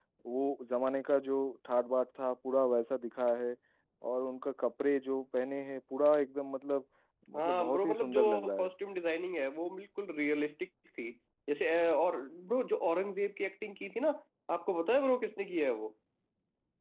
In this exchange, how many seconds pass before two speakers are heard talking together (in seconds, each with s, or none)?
7.4 s